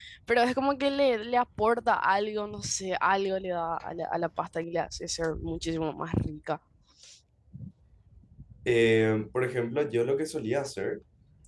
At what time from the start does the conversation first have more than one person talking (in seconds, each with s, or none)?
none